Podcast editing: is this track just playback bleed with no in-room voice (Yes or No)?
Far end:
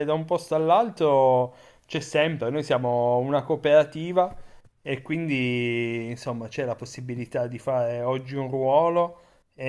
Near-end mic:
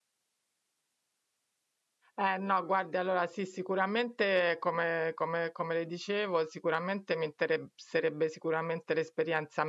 No